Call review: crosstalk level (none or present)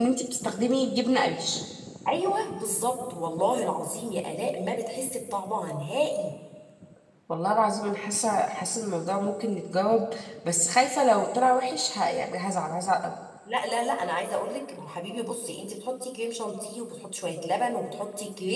none